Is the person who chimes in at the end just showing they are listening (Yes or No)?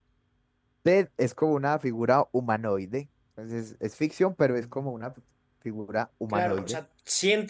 No